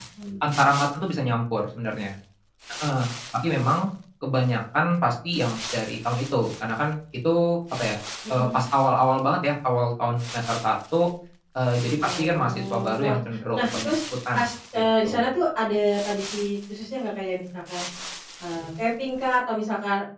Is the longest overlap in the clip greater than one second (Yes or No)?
Yes